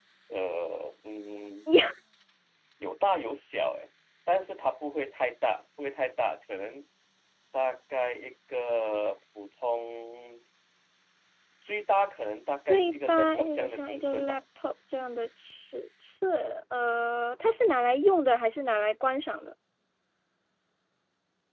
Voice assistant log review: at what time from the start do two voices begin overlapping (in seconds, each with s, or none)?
12.7 s